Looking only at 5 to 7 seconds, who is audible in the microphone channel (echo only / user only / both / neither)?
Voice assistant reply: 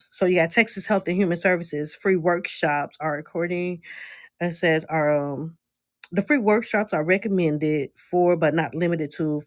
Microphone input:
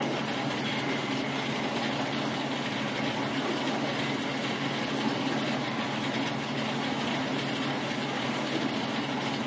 neither